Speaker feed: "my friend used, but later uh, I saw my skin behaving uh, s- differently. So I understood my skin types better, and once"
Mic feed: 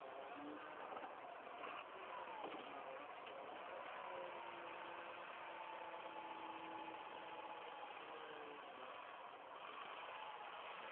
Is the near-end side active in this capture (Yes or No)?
No